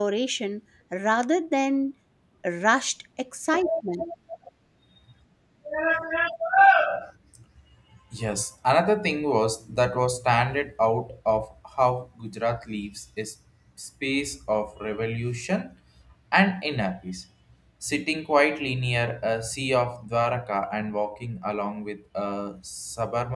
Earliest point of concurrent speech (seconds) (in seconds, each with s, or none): none